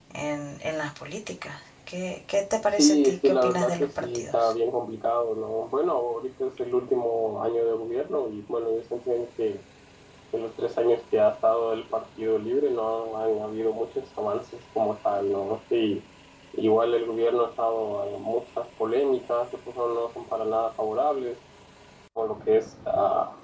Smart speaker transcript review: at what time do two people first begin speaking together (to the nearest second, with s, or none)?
3 s